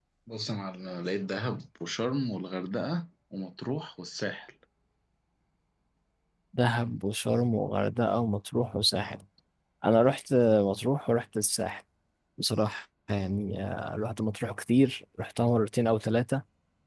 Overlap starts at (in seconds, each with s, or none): none